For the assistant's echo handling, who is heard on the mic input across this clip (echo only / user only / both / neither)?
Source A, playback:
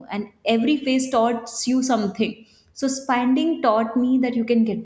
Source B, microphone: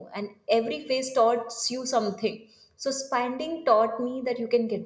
echo only